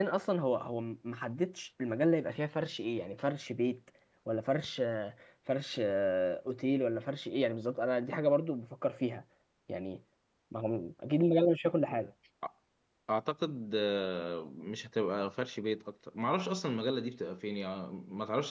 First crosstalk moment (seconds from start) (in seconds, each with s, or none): none